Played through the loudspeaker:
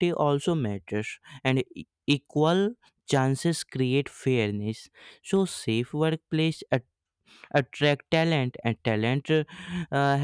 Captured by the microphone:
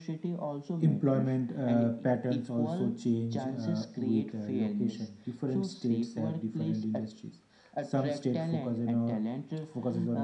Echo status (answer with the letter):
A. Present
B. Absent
A